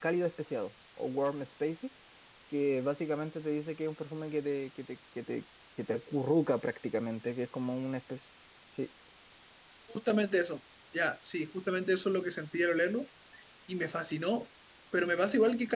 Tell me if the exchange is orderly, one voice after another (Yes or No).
Yes